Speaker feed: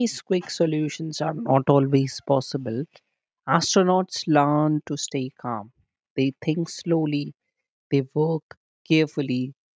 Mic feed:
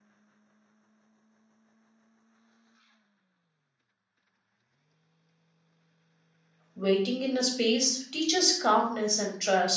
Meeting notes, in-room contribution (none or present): present